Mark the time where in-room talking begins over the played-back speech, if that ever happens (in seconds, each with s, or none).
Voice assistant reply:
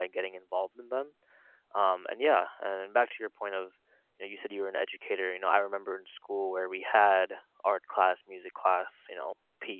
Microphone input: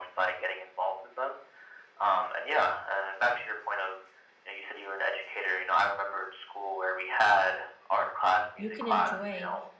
8.6 s